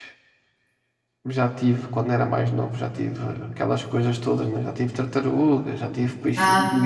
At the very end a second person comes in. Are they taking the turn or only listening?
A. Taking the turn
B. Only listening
B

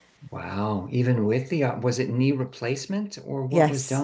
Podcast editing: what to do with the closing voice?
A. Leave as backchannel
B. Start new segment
B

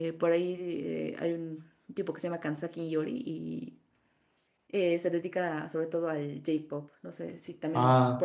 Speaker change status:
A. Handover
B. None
A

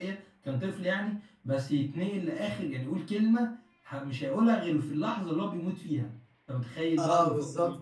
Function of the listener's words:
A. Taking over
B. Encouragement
A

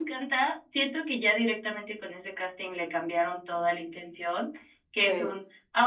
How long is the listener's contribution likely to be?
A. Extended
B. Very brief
B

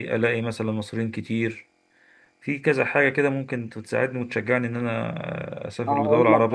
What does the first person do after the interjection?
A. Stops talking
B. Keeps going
A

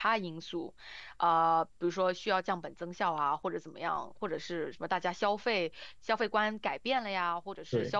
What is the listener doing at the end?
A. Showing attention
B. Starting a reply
A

